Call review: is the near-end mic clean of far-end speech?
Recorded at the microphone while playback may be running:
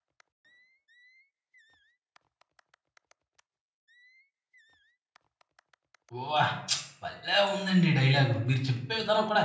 Yes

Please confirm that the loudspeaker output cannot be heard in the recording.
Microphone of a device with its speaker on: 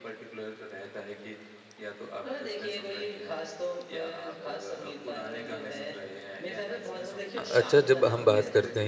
No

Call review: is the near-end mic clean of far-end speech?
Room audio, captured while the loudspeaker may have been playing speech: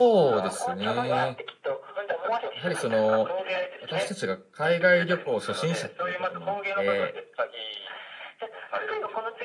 No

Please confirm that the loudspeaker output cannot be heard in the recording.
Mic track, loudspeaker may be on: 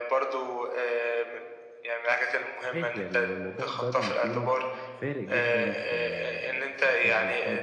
No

